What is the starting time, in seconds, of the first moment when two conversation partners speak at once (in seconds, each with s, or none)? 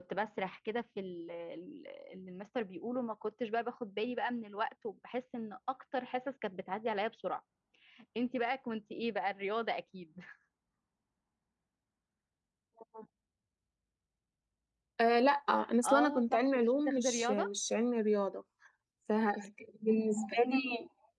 15.8 s